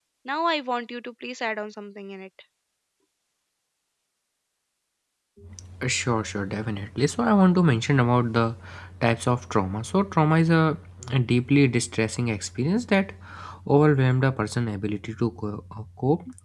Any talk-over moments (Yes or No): No